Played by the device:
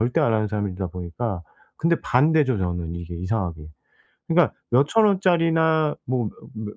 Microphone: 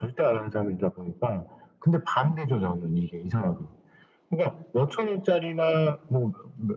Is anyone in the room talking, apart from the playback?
No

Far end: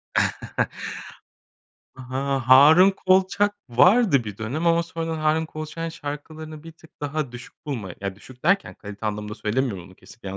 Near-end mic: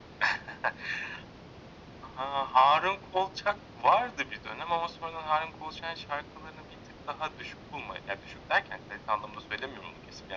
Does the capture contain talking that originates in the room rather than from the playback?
No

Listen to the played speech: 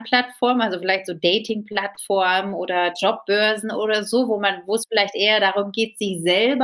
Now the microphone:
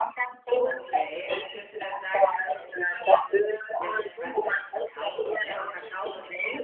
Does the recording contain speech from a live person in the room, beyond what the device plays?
Yes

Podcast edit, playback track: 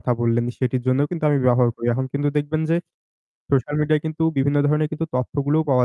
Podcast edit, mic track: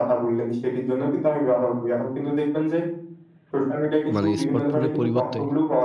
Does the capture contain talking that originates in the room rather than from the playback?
Yes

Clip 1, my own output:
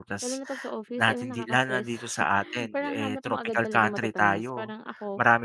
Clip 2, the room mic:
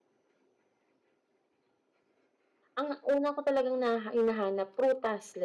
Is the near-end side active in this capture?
Yes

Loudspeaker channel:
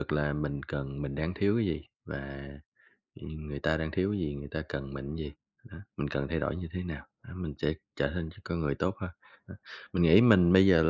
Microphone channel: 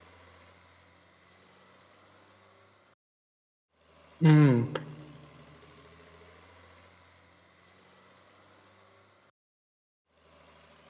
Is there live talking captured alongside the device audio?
Yes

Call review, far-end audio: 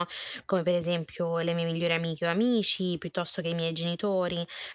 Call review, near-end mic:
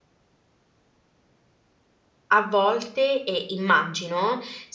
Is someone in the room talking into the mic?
Yes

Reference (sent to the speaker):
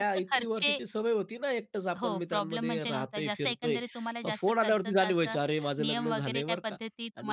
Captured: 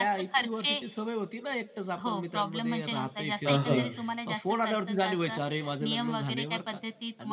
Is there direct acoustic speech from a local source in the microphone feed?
Yes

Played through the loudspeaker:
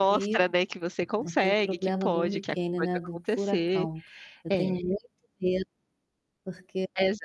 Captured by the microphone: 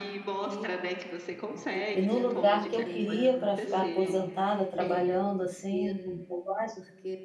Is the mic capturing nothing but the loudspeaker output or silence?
No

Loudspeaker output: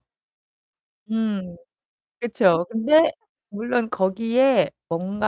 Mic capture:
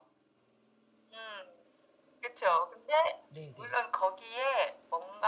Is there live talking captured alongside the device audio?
Yes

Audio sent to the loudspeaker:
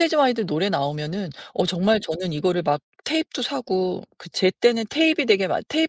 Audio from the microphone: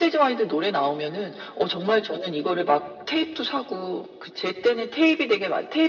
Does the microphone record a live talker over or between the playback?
No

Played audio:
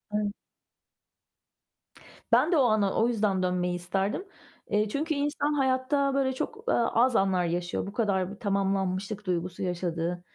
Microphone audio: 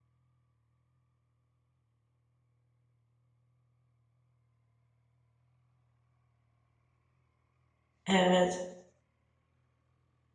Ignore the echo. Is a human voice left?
Yes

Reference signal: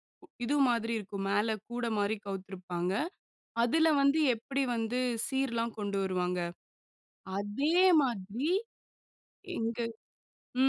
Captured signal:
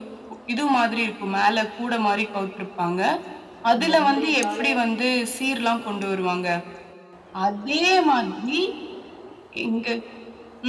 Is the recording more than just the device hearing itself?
Yes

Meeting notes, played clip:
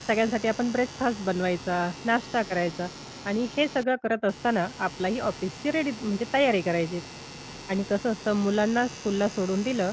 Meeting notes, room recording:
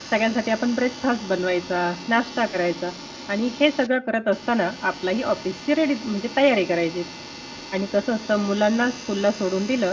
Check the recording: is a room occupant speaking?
No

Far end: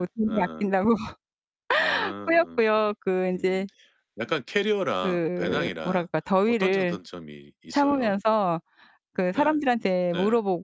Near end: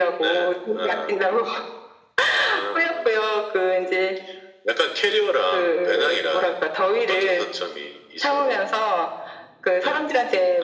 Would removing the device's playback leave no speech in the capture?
Yes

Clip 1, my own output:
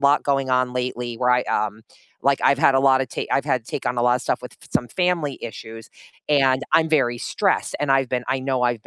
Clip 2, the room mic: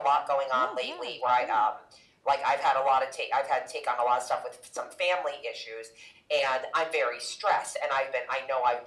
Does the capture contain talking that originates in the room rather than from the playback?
Yes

